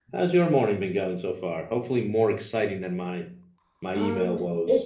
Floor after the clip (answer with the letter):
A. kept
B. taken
B